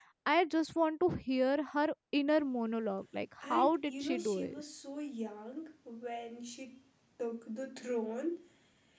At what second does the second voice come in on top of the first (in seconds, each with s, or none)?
3.4 s